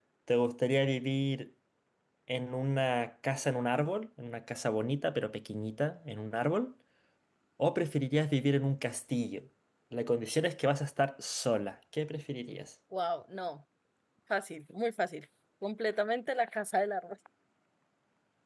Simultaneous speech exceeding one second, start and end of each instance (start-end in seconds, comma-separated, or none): none